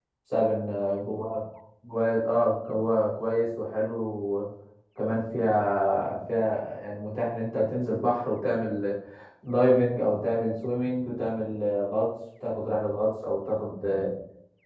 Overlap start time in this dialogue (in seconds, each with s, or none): none